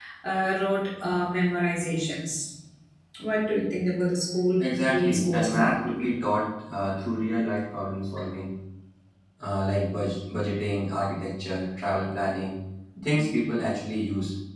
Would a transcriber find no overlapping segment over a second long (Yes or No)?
No